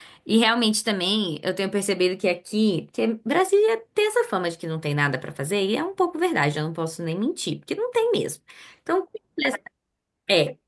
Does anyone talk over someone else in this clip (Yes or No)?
No